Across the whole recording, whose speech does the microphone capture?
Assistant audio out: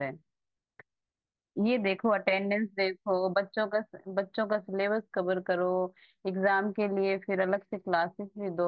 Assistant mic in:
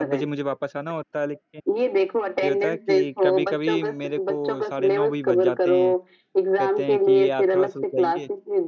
both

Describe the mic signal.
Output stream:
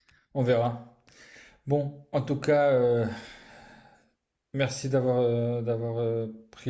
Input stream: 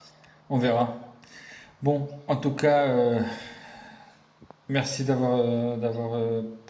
echo only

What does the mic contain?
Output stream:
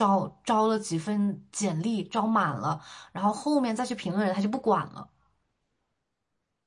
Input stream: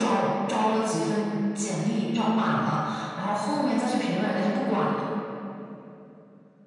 echo only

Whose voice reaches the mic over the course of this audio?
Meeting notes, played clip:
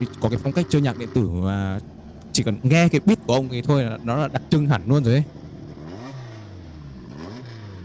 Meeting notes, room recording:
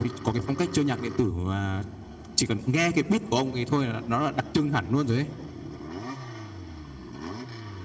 echo only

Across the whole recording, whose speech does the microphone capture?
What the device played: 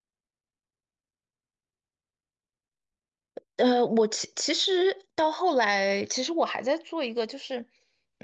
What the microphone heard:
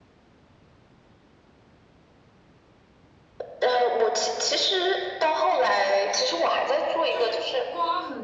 both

